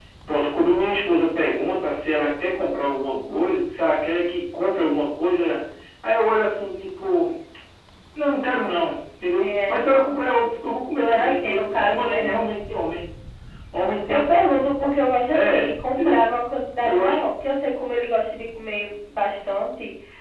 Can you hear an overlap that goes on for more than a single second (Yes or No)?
Yes